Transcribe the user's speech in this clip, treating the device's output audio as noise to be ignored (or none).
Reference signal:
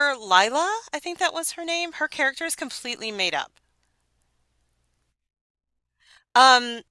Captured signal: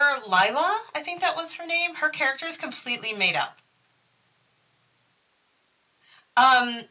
none